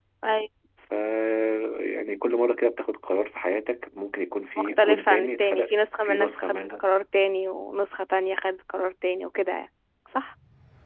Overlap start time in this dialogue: 4.6 s

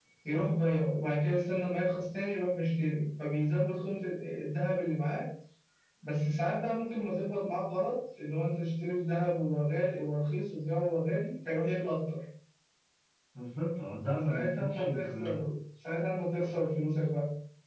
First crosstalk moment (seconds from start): 14.1 s

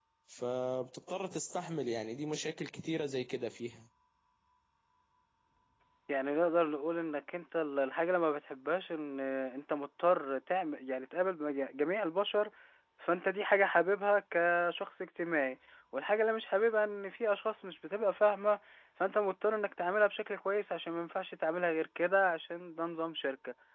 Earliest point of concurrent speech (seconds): none

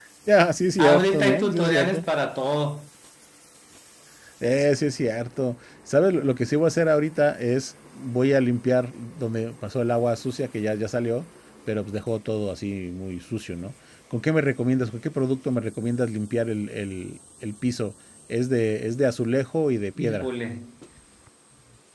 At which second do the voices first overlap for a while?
0.8 s

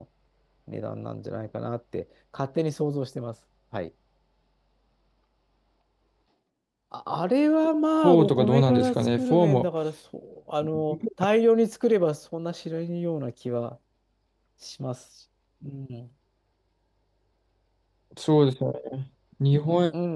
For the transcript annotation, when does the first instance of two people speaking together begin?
8.0 s

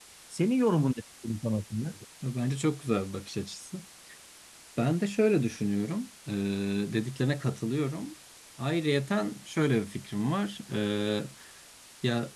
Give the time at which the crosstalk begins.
none

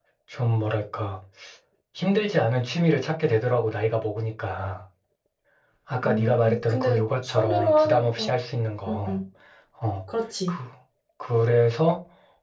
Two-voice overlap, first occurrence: 6.0 s

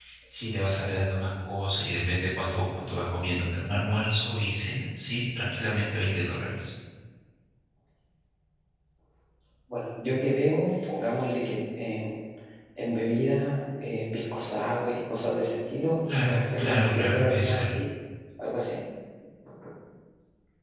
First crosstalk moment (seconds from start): 16.1 s

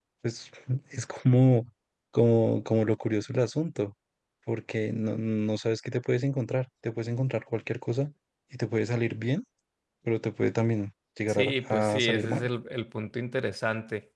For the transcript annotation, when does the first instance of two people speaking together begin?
11.3 s

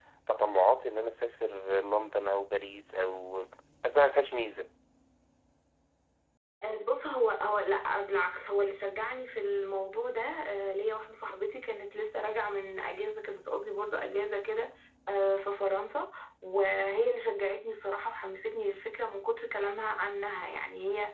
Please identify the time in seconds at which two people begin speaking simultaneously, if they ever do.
none

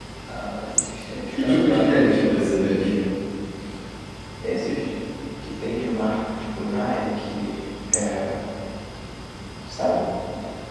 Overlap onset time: 1.3 s

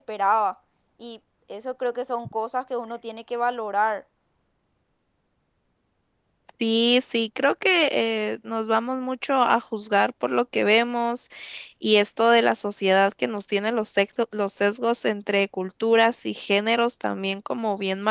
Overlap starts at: none

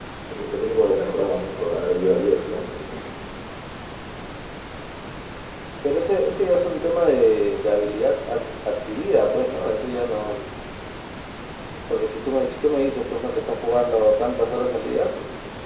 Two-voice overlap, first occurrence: none

